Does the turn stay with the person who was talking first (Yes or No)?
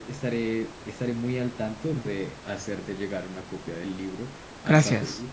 Yes